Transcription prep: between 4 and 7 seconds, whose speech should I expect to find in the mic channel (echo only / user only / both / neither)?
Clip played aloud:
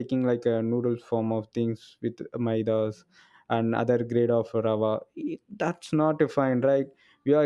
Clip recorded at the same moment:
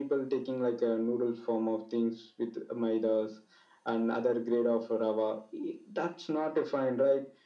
echo only